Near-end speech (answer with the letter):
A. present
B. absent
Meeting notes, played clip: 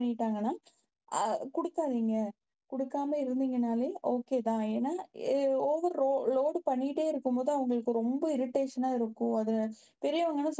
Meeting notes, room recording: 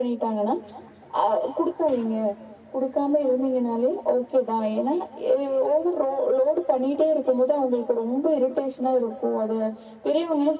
B